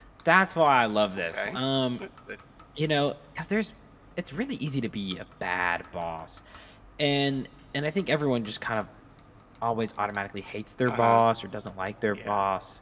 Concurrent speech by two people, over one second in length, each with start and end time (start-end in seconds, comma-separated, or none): none